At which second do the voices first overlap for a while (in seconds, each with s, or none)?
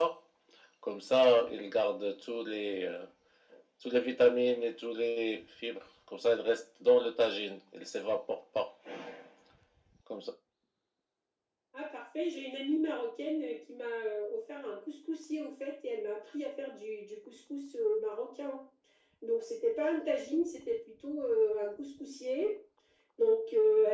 none